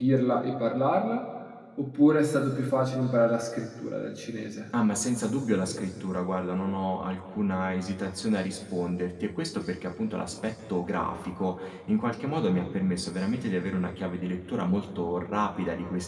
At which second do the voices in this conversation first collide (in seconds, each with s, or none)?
none